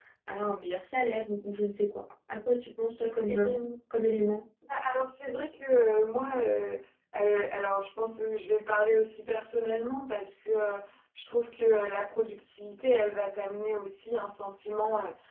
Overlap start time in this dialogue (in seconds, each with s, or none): none